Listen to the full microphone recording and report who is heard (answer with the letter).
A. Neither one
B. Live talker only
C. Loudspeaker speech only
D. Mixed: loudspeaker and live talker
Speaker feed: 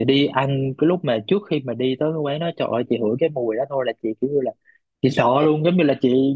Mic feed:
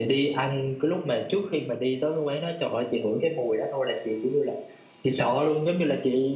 C